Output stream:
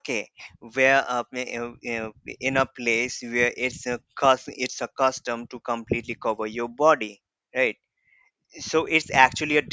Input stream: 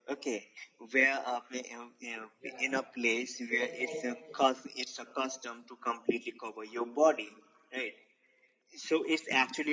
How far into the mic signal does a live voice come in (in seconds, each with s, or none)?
2.4 s